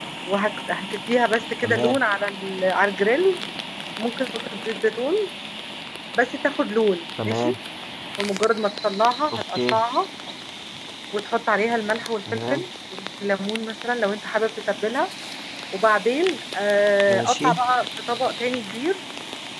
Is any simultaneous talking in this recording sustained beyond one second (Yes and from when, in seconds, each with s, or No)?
No